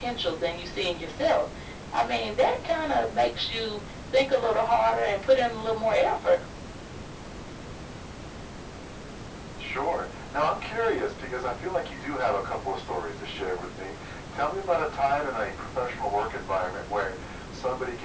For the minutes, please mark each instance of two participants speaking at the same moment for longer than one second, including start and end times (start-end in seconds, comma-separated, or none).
none